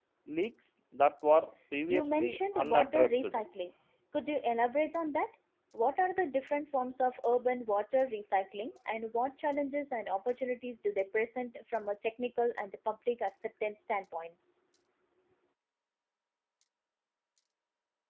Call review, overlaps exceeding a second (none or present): present